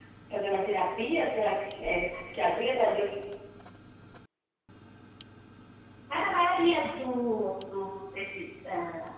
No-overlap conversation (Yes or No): Yes